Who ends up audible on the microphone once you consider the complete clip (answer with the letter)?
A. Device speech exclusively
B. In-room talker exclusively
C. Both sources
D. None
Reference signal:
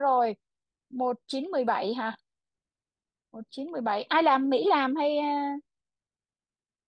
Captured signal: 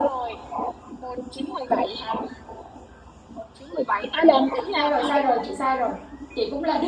C